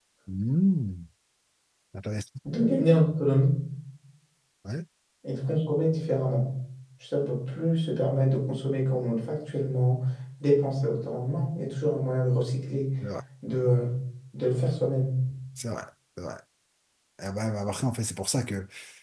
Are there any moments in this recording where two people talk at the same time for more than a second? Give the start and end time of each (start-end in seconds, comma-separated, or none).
none